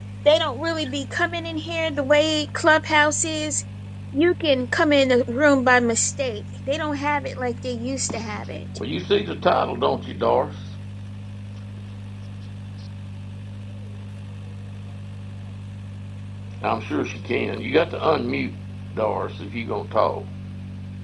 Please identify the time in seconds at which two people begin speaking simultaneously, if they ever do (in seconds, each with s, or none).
none